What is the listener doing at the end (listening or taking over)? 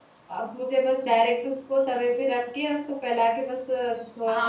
taking over